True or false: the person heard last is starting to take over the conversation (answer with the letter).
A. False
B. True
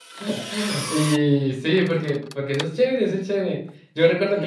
A